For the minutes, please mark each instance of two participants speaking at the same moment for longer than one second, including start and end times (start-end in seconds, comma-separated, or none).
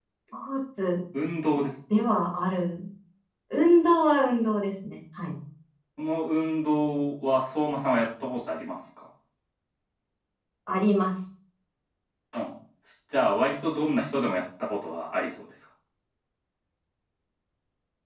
none